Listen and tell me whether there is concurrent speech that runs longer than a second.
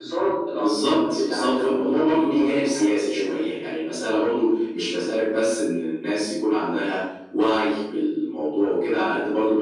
Yes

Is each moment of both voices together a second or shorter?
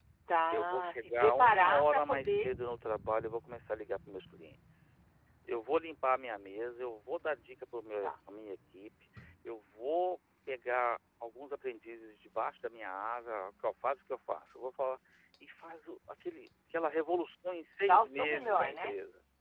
No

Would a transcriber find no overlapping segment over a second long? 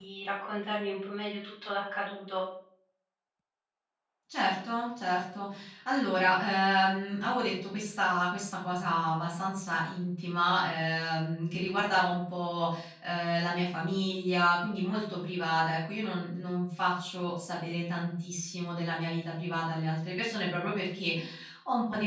Yes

